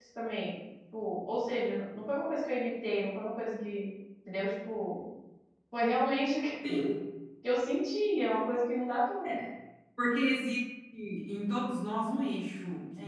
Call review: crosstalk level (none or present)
none